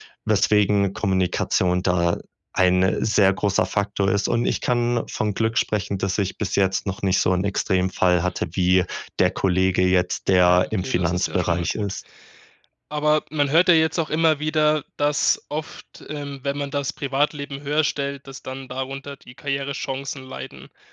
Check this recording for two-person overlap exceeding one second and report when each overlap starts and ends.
10.5-11.9

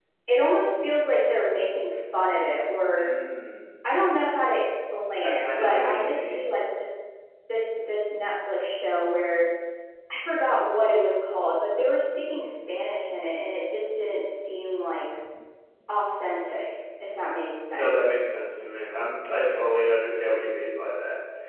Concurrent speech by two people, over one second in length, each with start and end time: 5.2-6.5

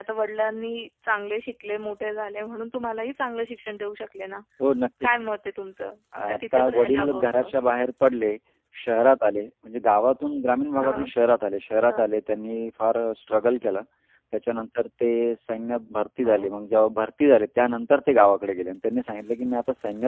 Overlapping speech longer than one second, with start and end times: 6.3-7.5

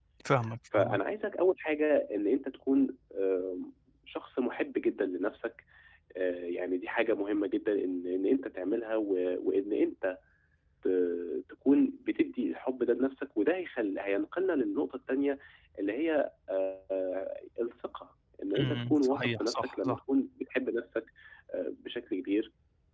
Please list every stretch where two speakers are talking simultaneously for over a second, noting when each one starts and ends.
18.6-20.0

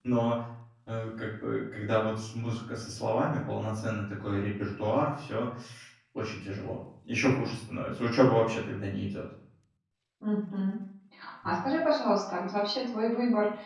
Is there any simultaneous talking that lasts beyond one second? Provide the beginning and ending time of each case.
none

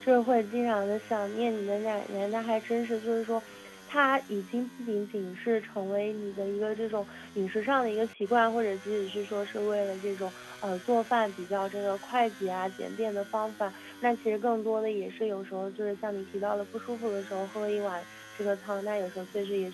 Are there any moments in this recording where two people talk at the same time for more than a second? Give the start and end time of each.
none

